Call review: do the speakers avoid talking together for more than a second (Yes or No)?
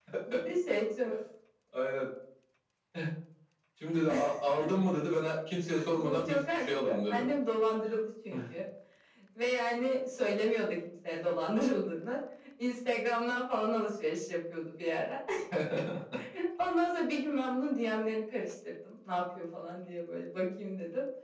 No